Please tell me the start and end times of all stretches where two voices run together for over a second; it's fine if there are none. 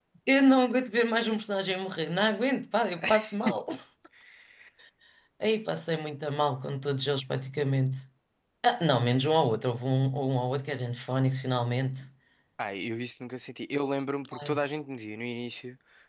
none

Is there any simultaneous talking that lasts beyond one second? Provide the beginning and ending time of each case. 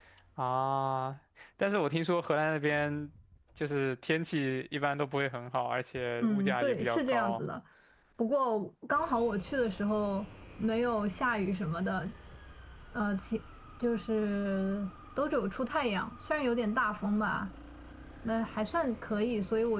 6.2-7.4

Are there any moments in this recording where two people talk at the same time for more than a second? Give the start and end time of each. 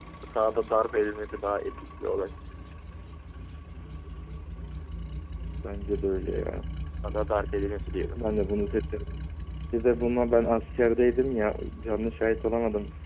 none

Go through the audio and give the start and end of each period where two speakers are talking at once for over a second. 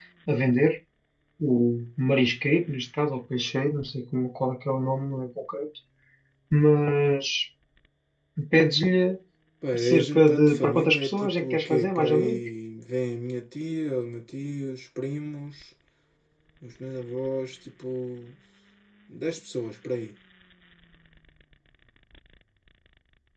9.8-12.4

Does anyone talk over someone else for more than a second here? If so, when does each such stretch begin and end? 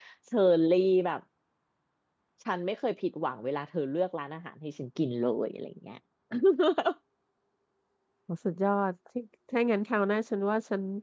none

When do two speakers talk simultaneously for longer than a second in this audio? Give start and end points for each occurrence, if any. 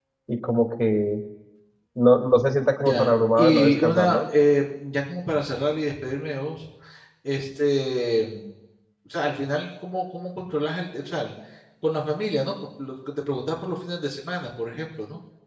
2.9-4.3

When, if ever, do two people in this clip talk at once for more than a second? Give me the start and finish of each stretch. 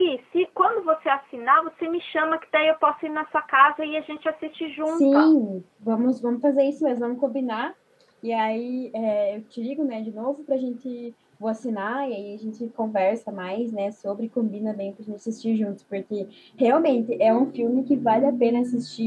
none

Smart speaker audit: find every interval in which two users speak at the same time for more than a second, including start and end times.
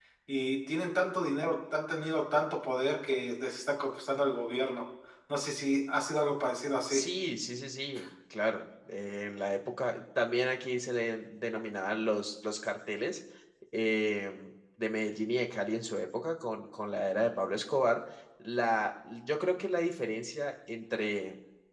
none

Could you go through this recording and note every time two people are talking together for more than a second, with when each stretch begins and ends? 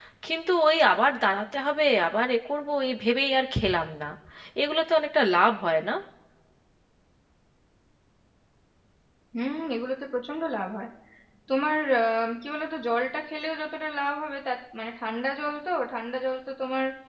none

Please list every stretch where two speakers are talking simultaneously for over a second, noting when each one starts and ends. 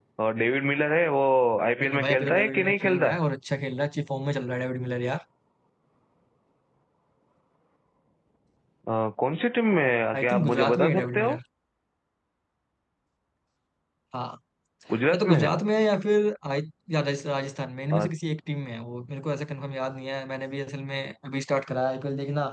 1.8-3.1, 10.1-11.4

